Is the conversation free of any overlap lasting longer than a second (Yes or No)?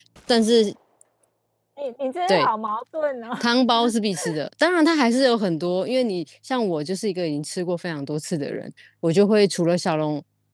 Yes